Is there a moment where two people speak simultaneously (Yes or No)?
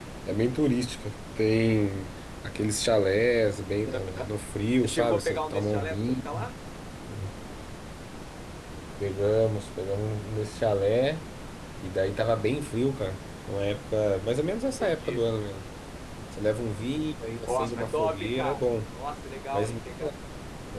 Yes